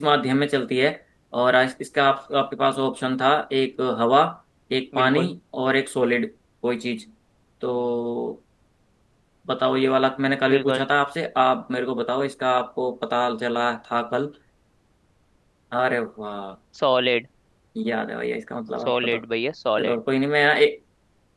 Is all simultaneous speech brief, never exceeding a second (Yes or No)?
Yes